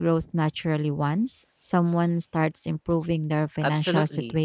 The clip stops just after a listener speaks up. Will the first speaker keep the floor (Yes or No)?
No